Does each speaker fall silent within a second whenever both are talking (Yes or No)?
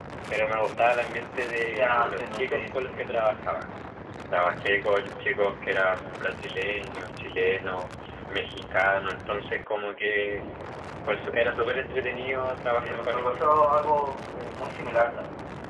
No